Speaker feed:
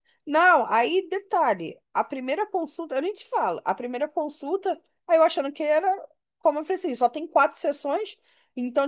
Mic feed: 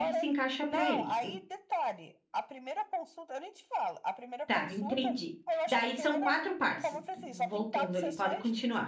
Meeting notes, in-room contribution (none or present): present